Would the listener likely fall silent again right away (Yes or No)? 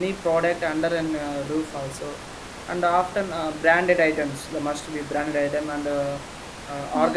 Yes